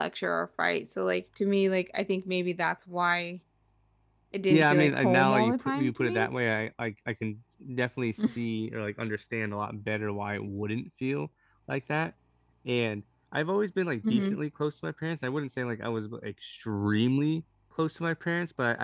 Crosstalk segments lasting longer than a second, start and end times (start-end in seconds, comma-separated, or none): 4.5-6.3